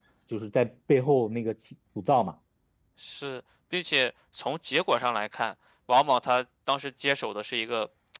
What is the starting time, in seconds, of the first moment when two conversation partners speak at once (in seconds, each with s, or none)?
none